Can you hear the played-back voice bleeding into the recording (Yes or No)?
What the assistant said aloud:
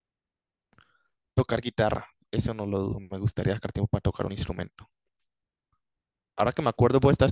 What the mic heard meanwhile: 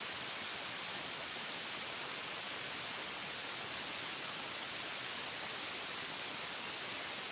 No